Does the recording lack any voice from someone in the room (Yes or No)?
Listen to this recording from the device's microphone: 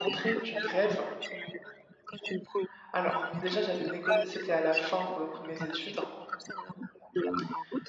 No